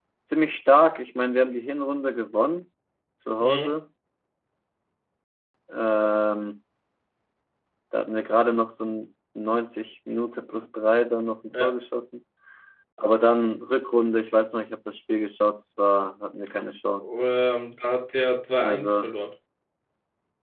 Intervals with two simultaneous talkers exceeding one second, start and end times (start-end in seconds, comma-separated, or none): none